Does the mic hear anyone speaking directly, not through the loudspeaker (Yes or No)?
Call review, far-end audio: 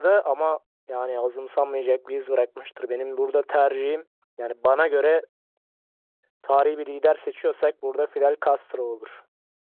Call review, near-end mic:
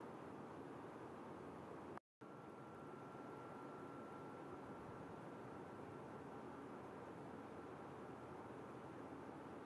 No